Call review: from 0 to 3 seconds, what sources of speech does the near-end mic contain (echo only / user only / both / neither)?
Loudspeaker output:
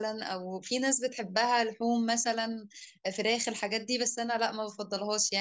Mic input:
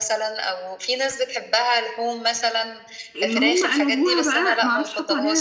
echo only